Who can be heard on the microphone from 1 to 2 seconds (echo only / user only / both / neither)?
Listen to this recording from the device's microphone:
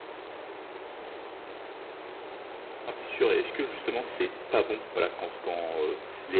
neither